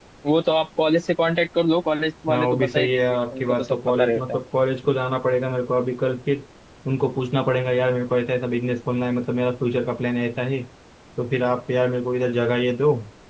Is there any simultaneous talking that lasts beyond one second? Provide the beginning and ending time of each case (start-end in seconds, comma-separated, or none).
2.3-4.4